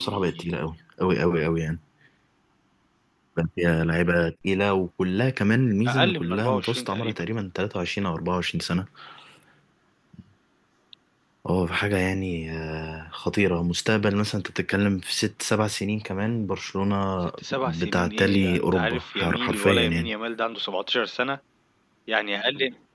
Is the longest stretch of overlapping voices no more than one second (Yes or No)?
No